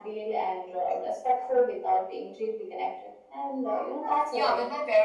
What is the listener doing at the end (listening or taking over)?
taking over